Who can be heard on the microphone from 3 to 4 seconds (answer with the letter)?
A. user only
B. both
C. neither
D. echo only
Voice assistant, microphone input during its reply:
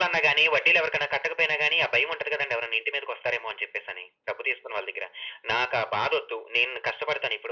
D